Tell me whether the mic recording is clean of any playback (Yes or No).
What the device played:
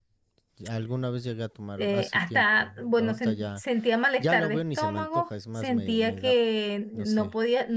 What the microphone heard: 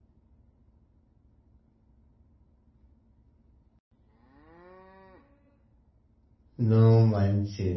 Yes